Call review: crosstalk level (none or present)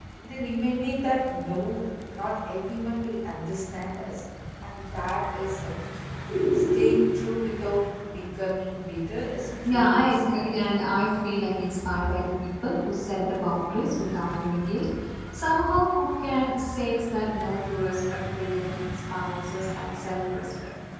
present